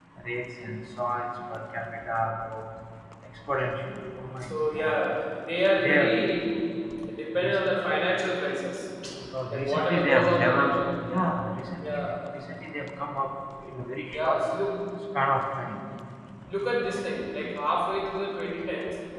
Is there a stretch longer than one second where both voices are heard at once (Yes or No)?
Yes